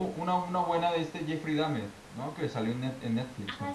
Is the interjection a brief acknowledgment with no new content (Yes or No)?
No